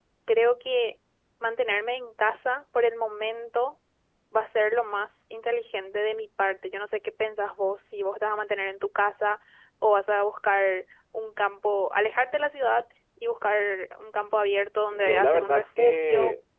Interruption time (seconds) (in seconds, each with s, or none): 14.9 s